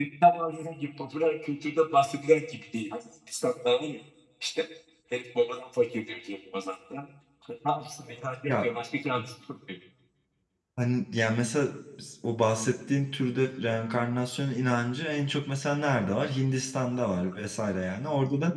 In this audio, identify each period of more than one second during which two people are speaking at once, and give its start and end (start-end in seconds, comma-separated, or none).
none